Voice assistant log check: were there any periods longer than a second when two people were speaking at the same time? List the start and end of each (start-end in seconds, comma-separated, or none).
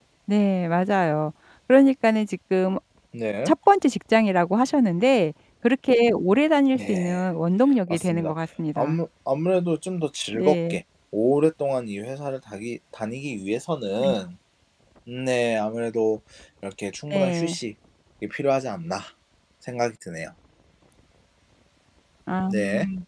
none